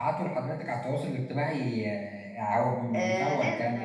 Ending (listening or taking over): taking over